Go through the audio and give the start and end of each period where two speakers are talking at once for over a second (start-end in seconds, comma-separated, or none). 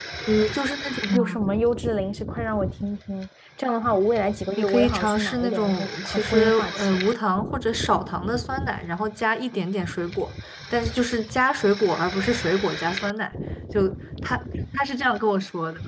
4.6-7.0